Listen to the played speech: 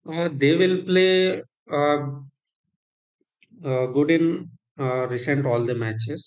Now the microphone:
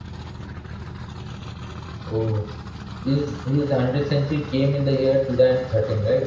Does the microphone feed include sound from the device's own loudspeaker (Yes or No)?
No